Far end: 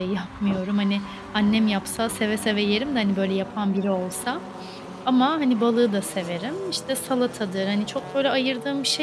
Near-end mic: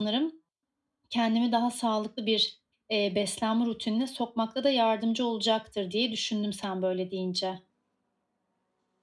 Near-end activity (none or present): present